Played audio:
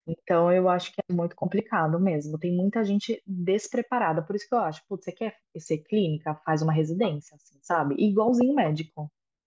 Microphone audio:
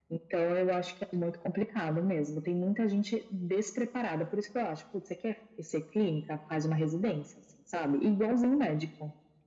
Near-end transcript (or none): none